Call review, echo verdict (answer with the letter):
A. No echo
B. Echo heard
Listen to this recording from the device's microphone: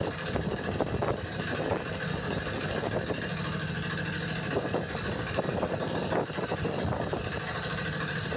A